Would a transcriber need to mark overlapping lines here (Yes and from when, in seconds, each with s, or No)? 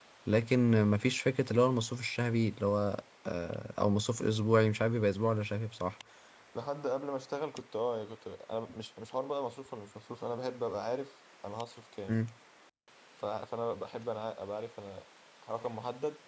No